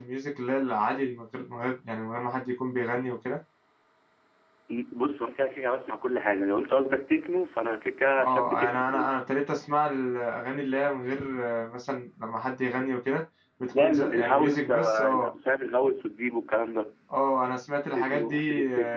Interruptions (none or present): present